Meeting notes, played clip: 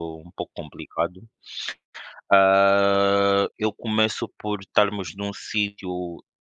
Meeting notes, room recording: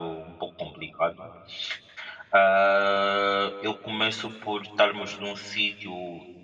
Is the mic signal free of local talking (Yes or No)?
Yes